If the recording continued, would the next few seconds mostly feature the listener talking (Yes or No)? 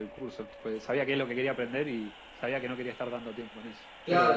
Yes